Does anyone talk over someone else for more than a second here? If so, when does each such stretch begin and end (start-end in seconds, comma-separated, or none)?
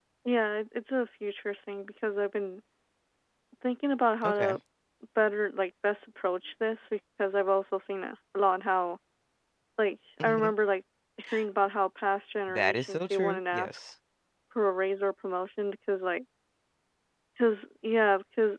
12.5-13.8